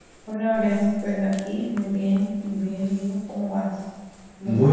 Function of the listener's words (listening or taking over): taking over